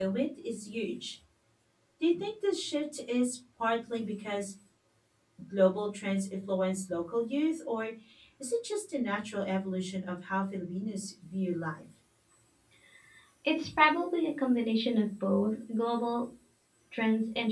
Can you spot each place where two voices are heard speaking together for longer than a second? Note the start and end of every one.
none

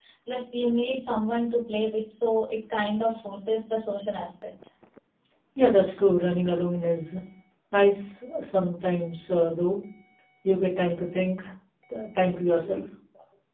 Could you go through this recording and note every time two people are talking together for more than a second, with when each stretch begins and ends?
none

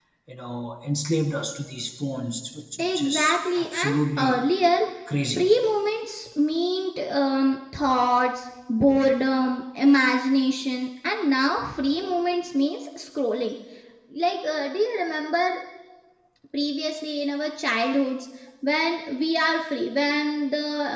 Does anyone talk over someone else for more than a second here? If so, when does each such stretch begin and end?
2.8-4.4

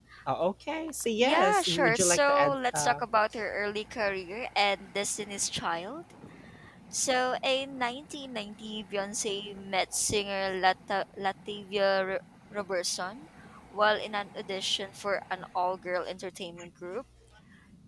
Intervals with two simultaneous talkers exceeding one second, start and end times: 1.2-3.0

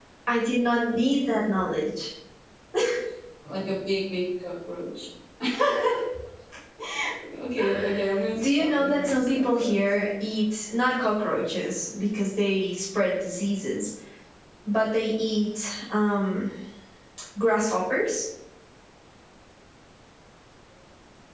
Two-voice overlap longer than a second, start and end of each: 8.4-9.8

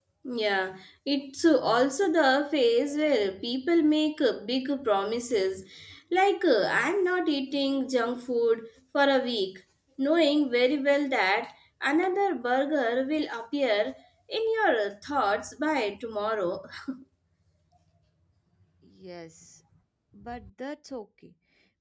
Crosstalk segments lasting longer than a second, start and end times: none

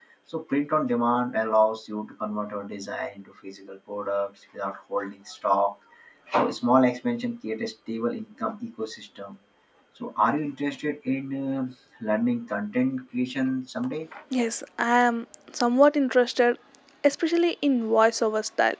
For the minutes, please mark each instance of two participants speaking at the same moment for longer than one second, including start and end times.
none

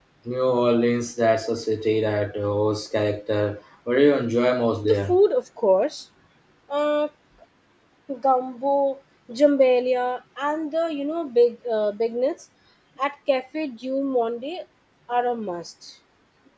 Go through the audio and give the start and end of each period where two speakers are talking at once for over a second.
none

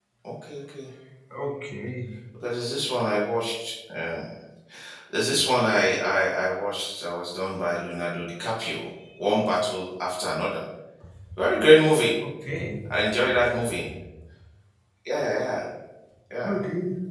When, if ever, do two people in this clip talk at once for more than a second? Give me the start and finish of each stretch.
none

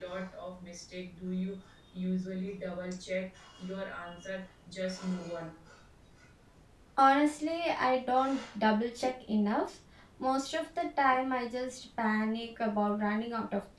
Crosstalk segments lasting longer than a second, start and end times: none

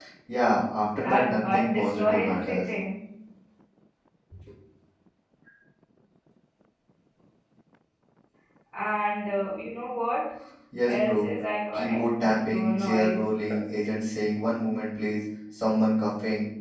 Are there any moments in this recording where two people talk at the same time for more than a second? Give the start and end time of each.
0.9-2.6, 11.7-13.2

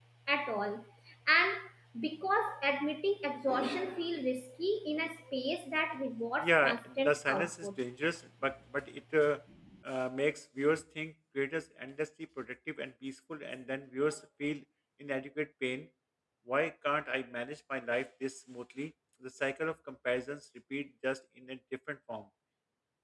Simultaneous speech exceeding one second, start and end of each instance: 6.4-7.7

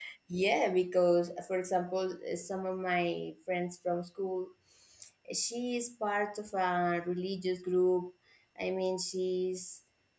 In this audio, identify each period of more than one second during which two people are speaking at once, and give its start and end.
none

